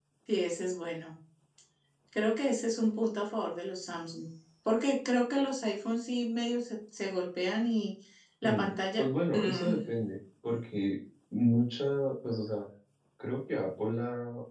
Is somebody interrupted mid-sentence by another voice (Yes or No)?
Yes